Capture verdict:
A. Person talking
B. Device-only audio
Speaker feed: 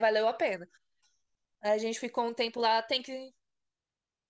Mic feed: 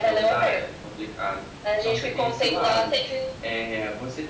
A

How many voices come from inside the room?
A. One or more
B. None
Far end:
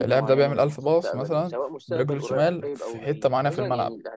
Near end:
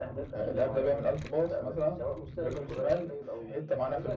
B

